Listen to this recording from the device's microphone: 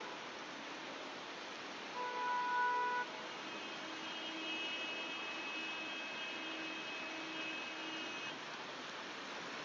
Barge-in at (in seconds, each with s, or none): none